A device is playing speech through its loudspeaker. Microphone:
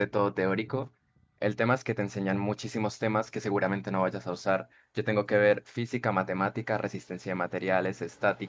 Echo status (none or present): none